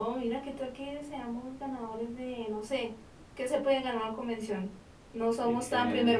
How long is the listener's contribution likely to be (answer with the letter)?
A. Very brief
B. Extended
A